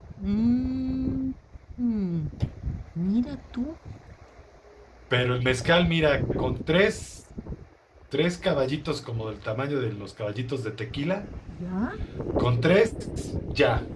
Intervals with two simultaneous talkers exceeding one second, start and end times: none

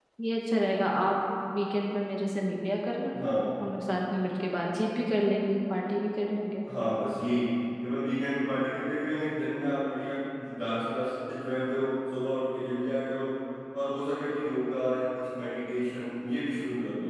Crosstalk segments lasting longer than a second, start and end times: none

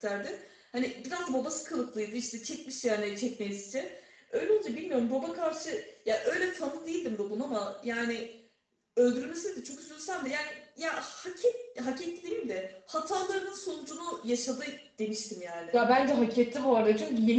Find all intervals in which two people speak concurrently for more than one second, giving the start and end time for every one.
none

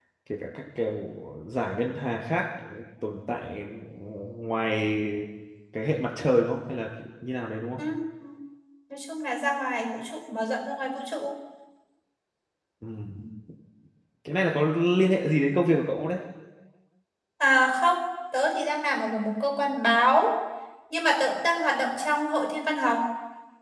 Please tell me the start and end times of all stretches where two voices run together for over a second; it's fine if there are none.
none

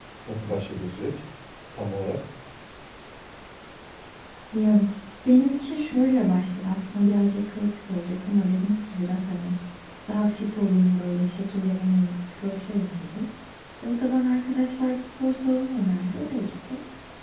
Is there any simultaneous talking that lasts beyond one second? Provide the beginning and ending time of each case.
none

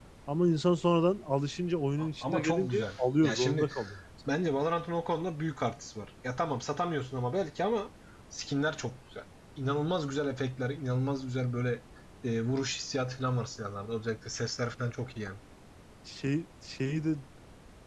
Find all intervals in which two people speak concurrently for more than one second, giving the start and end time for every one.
2.0-3.7

